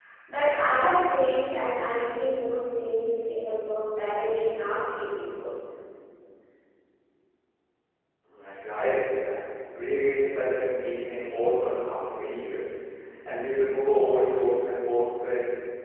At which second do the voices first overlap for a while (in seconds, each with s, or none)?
none